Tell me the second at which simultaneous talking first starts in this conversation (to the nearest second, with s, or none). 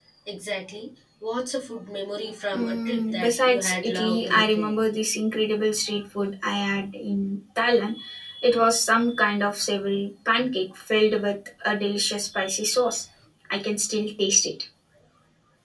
3 s